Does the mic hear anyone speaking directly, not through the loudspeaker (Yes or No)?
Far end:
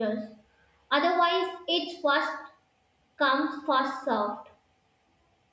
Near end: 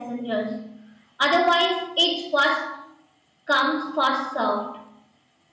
No